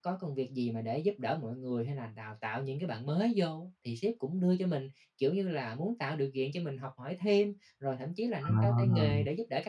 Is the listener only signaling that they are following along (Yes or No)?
Yes